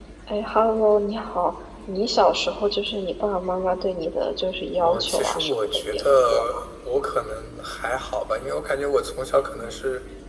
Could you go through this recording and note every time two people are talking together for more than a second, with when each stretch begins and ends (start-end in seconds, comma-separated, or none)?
4.8-6.6